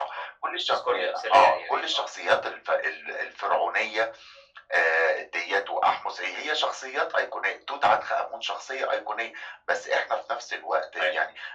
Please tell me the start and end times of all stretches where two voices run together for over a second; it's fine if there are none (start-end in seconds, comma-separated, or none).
0.7-2.0